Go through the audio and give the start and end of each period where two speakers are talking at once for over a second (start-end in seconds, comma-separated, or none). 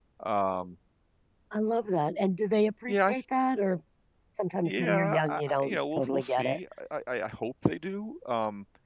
4.7-6.6